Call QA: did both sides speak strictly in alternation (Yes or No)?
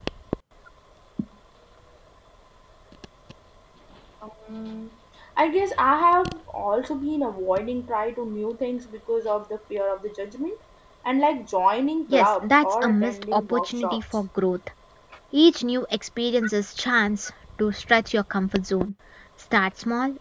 No